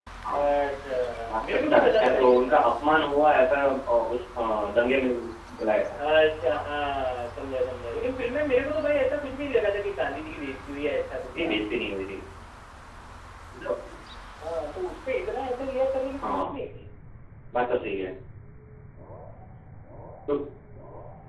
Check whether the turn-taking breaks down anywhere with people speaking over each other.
Yes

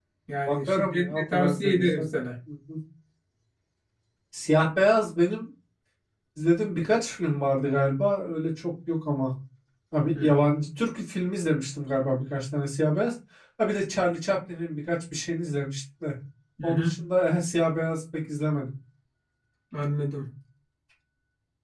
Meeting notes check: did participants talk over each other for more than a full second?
Yes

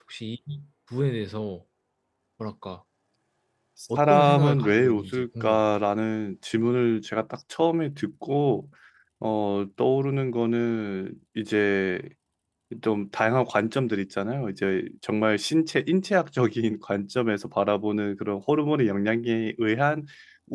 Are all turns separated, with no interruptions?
No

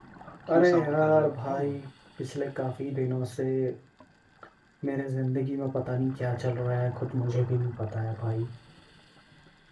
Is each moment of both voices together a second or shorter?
No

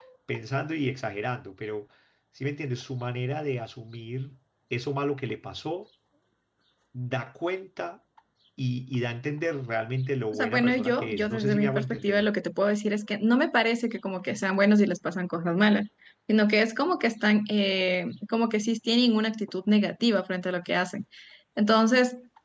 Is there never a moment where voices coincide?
No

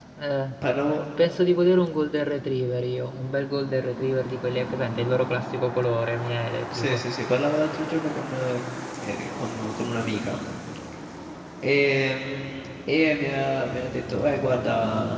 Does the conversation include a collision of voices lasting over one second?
No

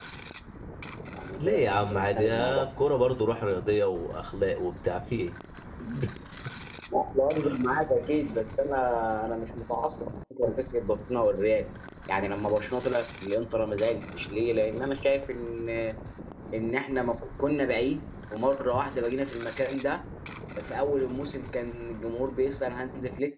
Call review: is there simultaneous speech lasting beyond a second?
Yes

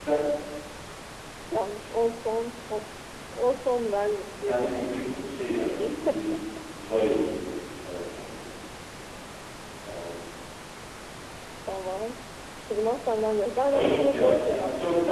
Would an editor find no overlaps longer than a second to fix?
No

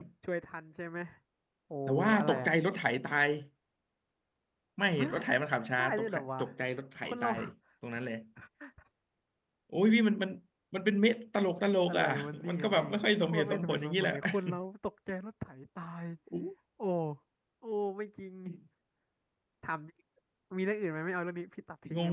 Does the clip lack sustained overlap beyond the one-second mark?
No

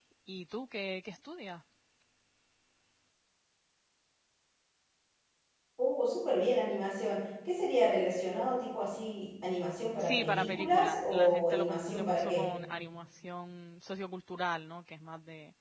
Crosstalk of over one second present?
Yes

